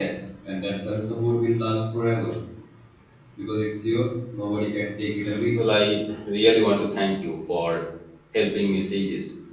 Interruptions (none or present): none